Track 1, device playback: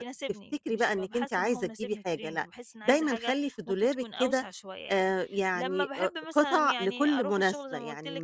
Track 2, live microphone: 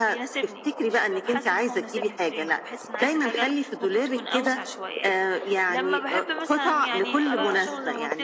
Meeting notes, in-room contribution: present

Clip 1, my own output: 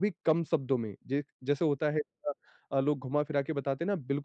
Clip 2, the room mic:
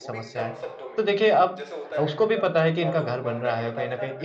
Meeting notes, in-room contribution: present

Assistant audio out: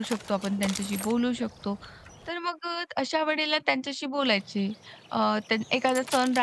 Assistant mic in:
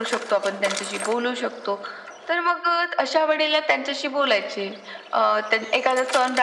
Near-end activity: none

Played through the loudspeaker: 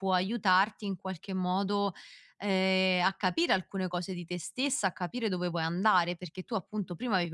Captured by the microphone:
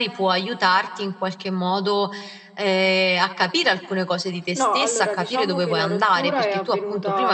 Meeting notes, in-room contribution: present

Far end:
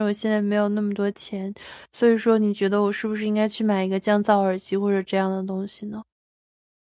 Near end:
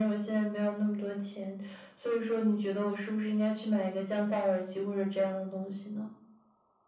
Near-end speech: none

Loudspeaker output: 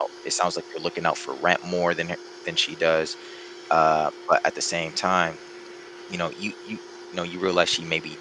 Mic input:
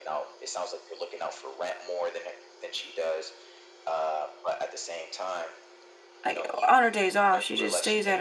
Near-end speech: present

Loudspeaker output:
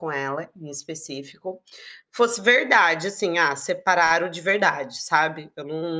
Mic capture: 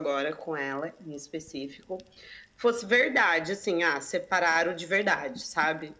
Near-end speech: none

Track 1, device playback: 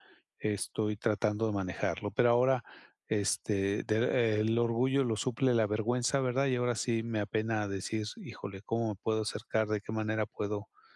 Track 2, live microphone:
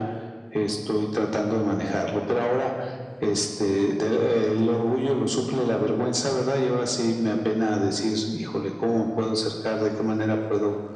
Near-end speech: none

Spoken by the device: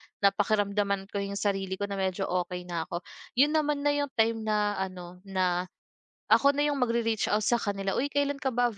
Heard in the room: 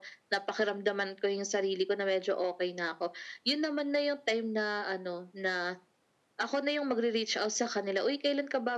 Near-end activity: none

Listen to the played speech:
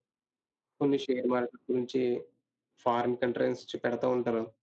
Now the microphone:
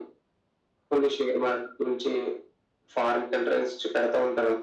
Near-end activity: none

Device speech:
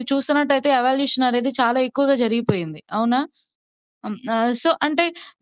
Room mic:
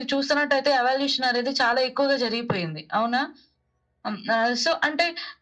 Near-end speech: none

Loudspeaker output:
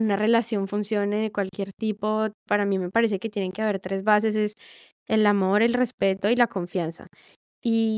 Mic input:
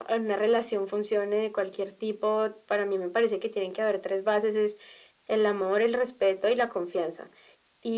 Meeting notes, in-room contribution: none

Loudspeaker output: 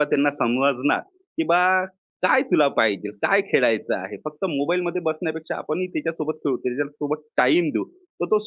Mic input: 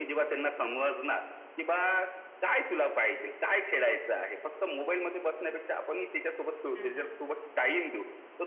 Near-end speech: present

